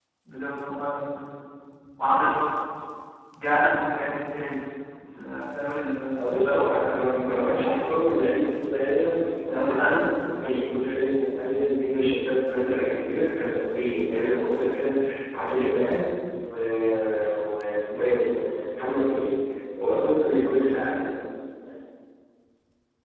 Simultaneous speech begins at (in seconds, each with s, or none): 6.1 s